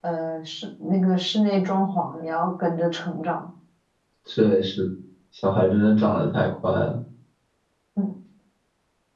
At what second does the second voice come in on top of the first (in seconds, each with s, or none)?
none